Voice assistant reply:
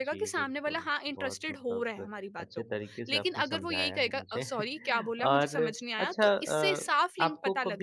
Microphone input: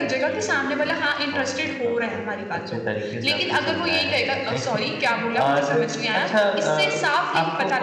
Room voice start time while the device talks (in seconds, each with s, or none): none